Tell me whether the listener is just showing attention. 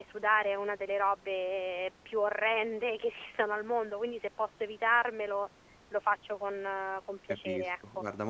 No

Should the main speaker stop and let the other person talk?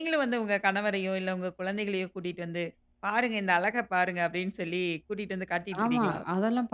Yes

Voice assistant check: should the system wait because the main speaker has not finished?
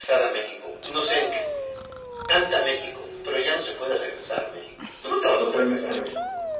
No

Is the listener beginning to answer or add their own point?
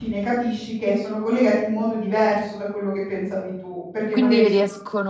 Yes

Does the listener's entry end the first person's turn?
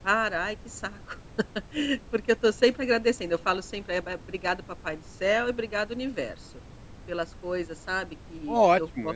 Yes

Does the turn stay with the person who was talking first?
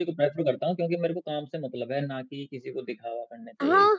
No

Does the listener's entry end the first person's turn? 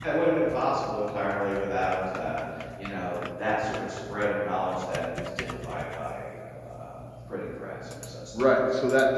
Yes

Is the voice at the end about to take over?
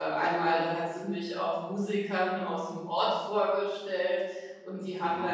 No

